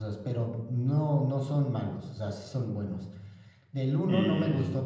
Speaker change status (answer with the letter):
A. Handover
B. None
B